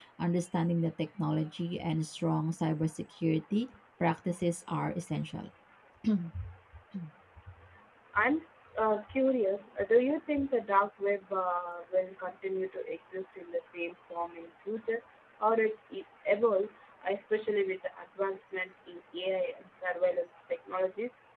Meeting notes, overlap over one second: none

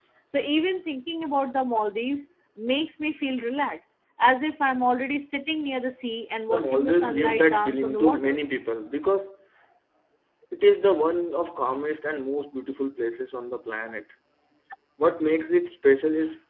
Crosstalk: present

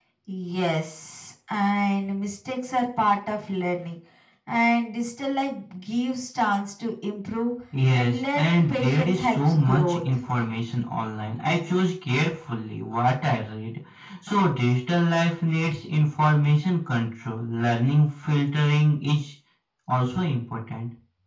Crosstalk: present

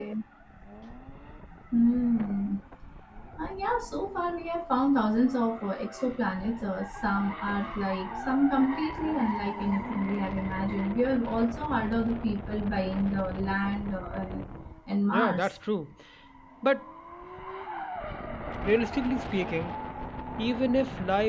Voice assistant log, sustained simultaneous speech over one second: none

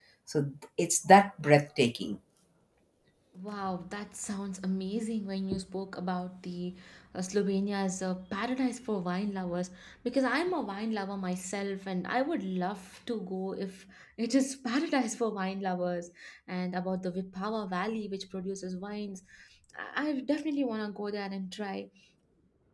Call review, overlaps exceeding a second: none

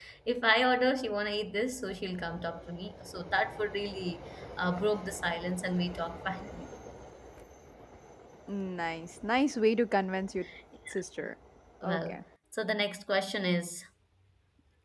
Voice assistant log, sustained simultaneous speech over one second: none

